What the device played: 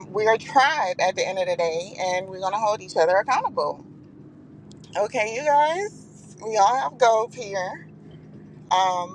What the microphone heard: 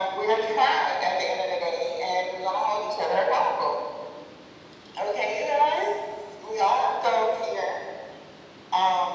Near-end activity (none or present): none